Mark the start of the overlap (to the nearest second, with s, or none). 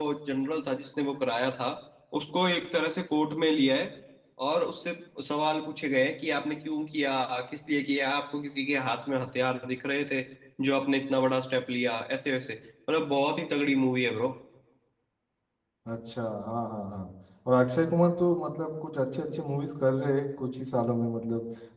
none